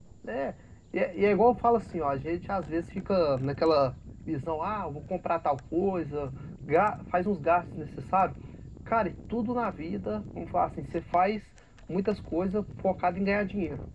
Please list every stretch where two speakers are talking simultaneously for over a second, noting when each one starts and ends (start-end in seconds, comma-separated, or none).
none